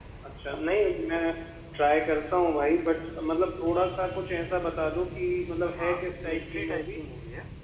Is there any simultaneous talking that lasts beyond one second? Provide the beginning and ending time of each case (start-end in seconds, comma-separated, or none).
5.7-7.0